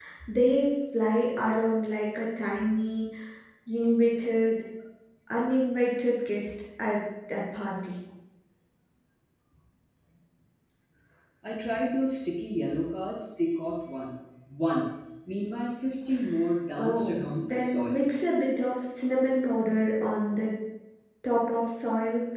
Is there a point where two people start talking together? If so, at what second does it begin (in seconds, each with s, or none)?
16.8 s